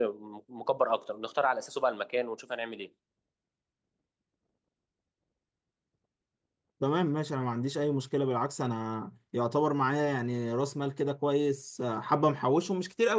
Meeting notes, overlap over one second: none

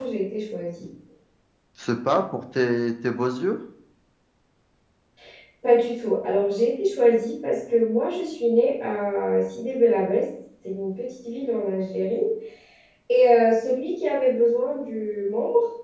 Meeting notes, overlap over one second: none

